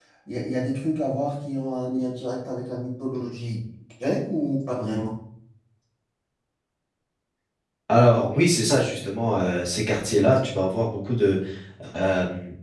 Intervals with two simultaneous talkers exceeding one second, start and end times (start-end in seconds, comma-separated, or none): none